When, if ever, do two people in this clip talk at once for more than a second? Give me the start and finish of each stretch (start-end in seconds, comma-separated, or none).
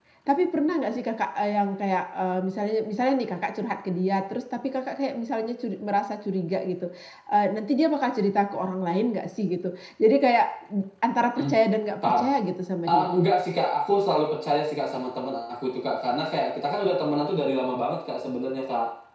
none